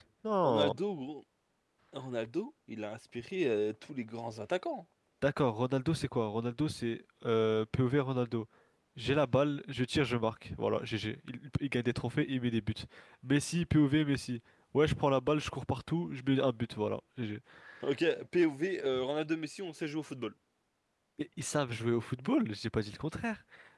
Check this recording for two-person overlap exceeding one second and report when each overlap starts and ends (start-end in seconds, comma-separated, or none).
none